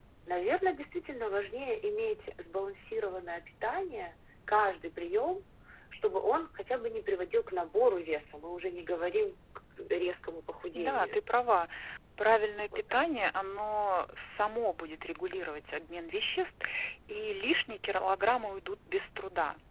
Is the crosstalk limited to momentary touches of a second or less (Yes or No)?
Yes